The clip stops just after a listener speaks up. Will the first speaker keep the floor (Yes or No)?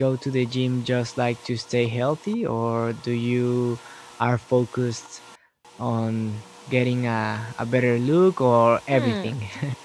No